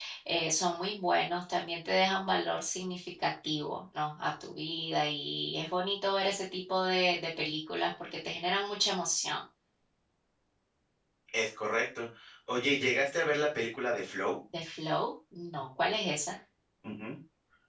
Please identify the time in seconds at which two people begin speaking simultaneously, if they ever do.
none

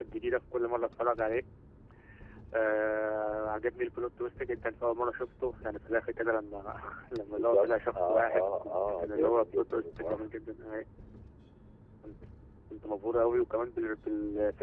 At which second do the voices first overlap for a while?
7.2 s

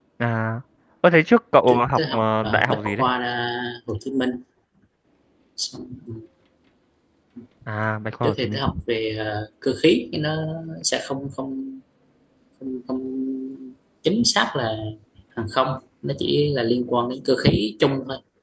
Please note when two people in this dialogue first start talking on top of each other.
1.7 s

